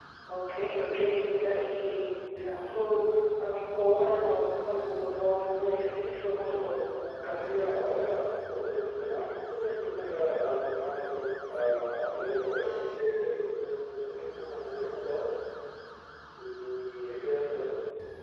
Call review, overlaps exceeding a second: none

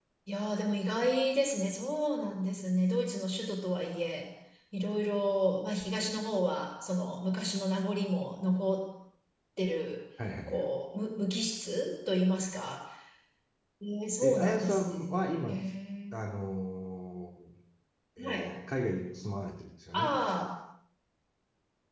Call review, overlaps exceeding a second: present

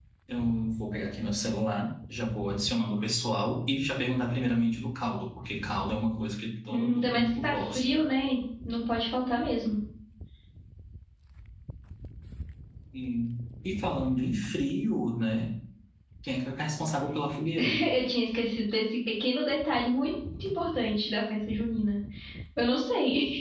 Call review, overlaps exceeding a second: present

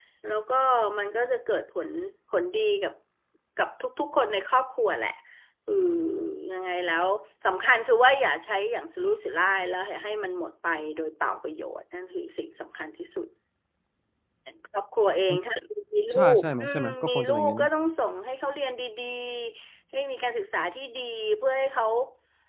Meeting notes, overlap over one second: present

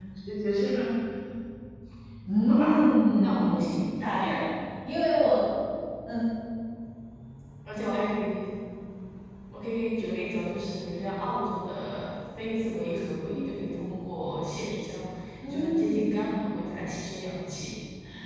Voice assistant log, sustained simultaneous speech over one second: present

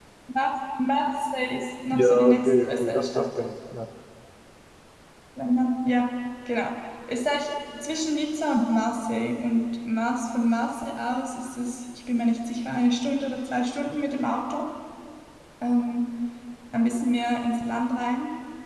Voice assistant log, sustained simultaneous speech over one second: present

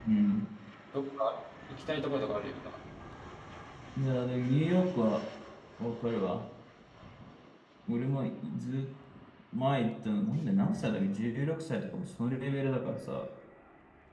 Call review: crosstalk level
none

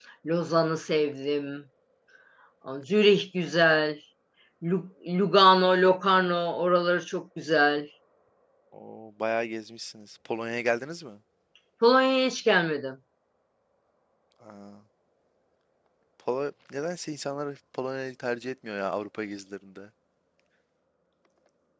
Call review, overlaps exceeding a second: none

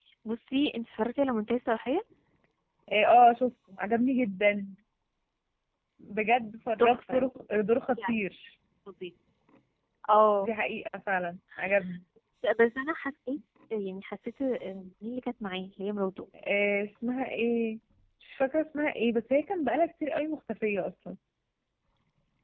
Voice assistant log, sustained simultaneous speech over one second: none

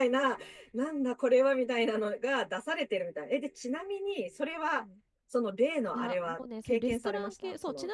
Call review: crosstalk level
present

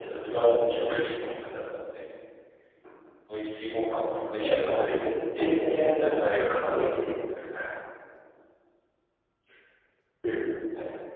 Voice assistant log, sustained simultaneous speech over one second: present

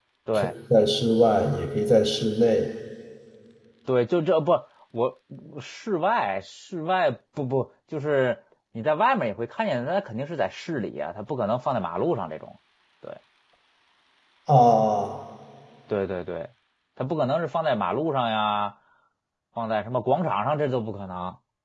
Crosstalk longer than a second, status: none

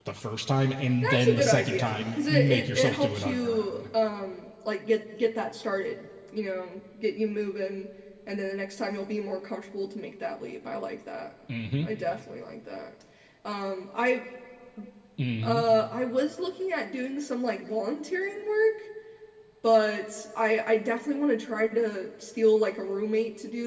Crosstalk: present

